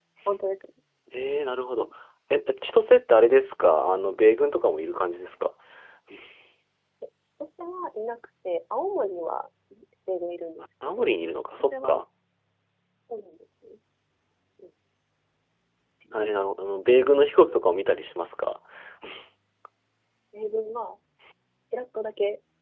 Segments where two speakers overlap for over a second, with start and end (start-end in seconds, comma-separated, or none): none